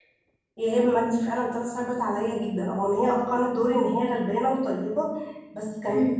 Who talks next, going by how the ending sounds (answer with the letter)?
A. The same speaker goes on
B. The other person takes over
A